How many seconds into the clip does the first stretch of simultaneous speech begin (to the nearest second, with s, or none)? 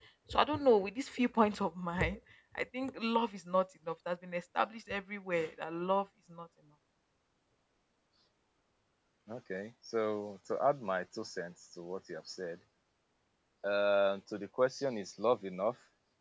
none